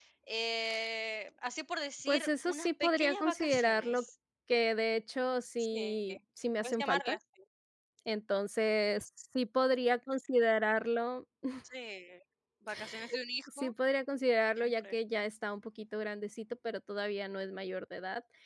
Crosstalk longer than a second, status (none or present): present